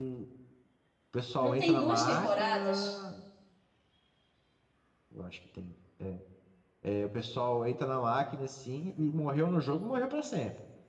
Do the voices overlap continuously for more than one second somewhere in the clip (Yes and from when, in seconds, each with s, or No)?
Yes, from 1.4 s